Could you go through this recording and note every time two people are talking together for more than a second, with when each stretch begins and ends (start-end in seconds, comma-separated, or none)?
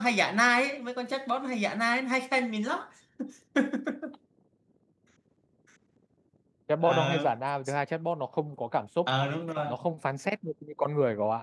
none